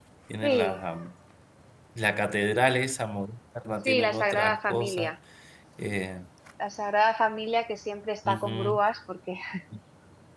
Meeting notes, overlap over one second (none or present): present